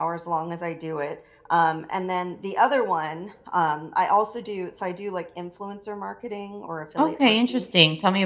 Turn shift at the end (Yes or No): Yes